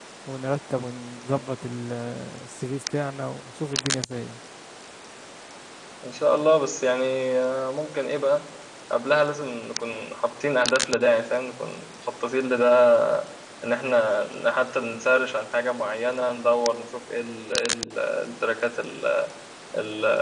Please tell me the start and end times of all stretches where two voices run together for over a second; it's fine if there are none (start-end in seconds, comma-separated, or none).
none